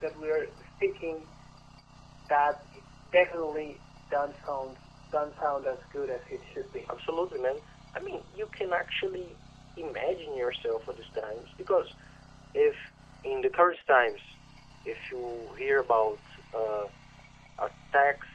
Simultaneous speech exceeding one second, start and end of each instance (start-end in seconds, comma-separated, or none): none